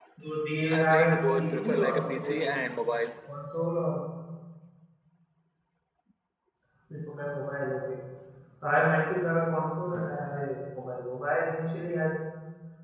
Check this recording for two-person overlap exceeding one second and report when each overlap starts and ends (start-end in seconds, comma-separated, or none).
0.7-2.6